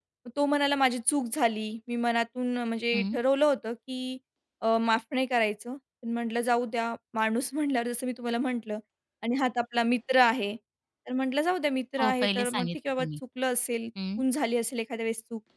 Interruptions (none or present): present